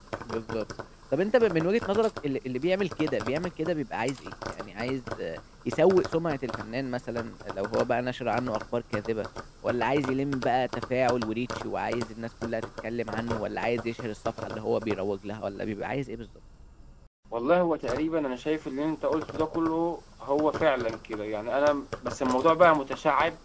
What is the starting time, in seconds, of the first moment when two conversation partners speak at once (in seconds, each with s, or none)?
none